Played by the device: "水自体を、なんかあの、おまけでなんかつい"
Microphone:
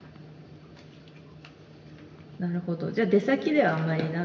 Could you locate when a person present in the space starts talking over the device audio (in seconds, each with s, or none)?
2.4 s